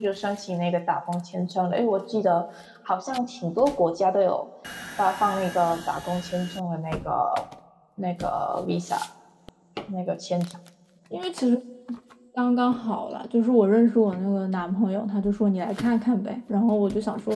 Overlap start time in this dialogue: none

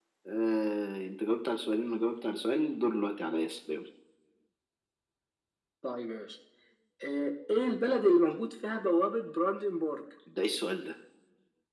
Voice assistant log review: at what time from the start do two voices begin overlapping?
none

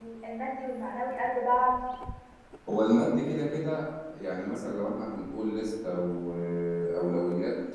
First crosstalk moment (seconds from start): none

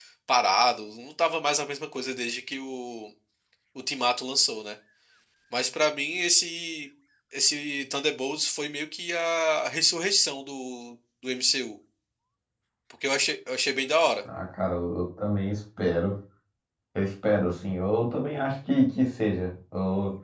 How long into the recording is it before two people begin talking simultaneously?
none

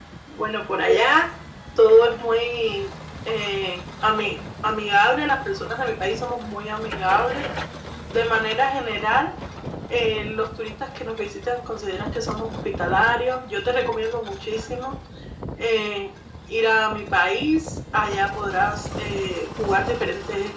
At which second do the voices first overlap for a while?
none

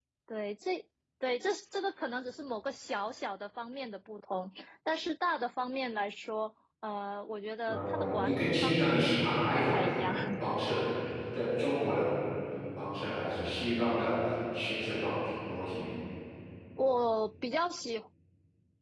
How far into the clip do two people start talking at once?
7.7 s

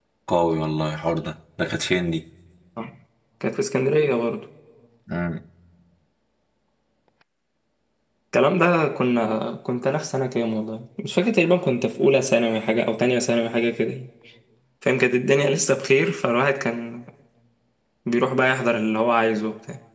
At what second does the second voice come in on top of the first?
none

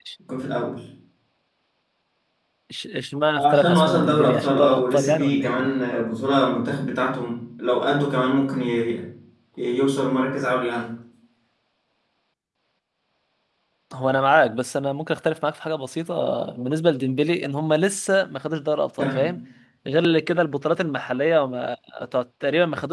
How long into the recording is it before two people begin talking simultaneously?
3.5 s

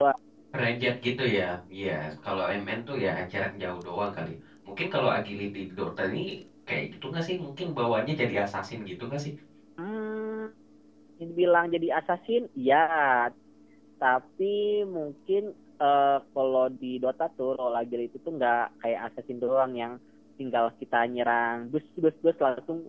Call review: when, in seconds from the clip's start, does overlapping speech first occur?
none

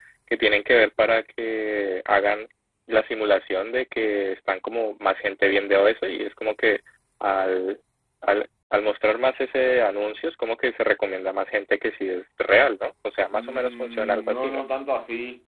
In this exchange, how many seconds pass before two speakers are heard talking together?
13.3 s

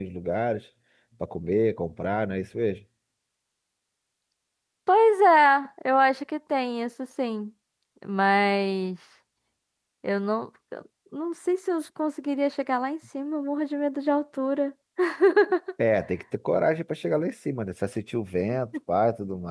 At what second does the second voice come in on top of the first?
none

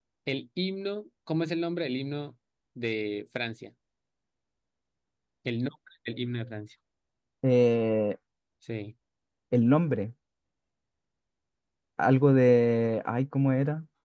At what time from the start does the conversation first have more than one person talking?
none

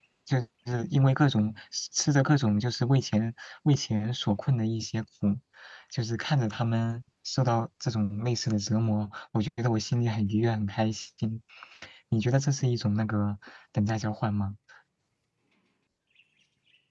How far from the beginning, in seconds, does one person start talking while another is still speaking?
none

